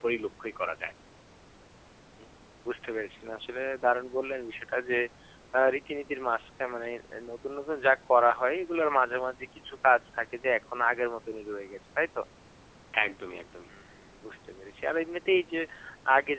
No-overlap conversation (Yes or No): Yes